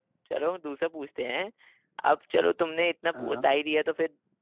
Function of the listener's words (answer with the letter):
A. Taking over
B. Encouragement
B